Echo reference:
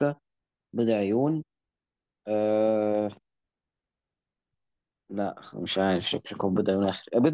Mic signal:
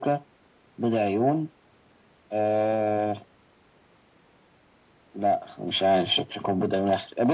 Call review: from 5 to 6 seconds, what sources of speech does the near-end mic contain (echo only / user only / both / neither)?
echo only